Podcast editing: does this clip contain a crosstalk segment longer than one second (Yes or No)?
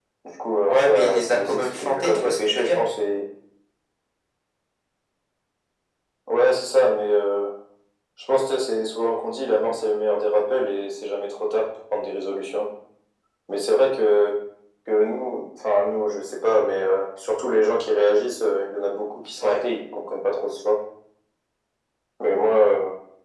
Yes